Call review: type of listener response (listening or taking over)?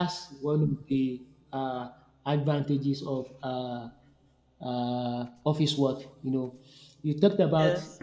listening